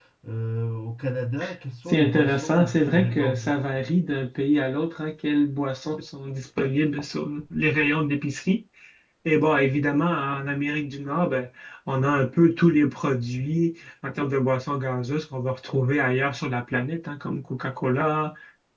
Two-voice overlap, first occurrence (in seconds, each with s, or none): 1.9 s